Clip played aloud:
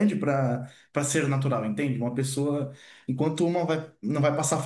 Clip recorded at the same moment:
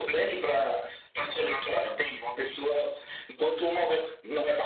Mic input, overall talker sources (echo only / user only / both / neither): echo only